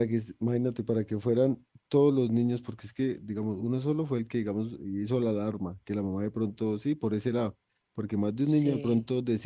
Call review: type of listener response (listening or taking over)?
listening